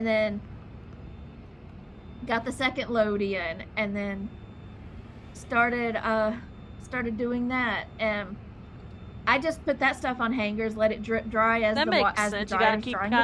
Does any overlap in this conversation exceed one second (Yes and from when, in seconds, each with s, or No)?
Yes, from 11.8 s